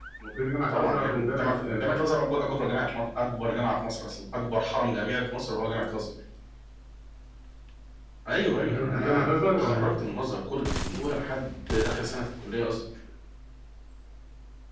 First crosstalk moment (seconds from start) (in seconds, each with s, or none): 0.7 s